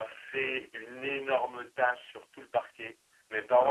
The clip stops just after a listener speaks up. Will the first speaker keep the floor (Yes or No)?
Yes